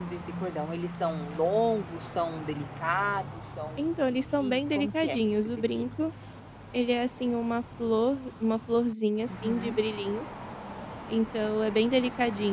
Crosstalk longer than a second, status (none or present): present